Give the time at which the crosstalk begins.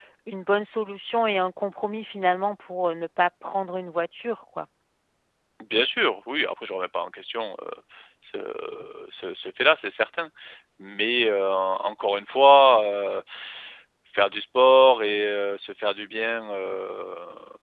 none

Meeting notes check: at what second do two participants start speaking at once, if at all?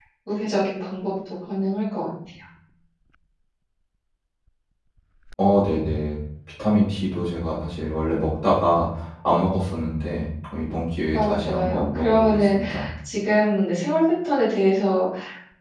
11 s

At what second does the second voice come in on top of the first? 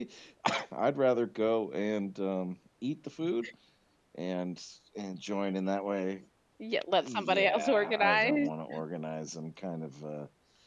7 s

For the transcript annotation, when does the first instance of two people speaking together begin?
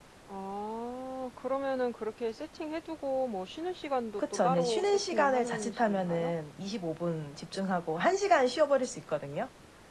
4 s

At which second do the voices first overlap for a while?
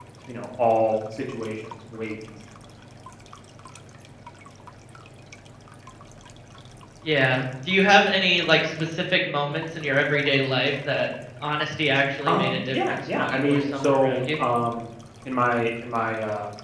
12 s

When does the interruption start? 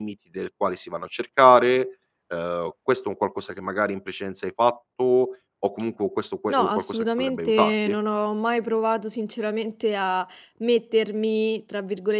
6 s

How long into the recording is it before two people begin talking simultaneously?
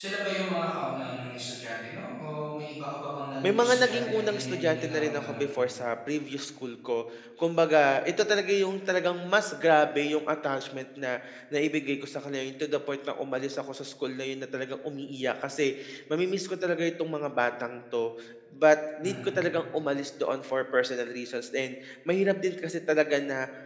3 s

